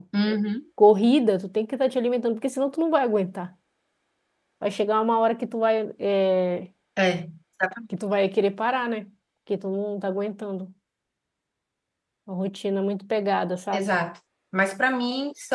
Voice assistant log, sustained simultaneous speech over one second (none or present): none